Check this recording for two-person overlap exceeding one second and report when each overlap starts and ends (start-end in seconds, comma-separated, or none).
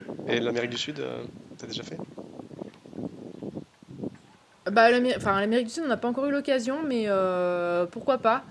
none